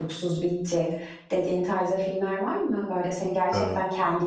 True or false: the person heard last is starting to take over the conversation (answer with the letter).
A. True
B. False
B